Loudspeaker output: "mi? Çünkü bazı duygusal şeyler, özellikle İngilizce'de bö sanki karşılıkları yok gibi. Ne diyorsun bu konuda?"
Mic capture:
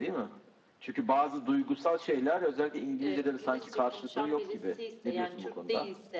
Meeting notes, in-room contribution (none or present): present